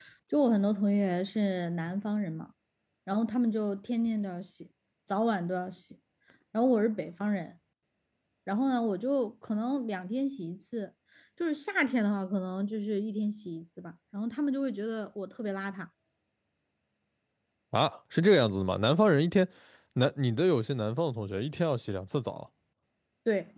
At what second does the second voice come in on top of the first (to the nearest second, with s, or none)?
none